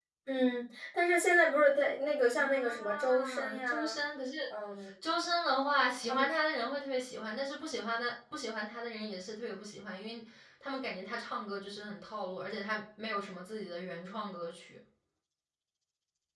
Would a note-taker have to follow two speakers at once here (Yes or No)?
Yes